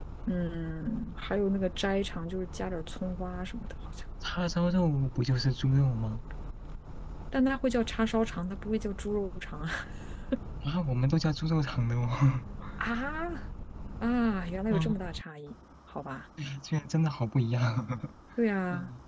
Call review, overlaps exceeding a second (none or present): none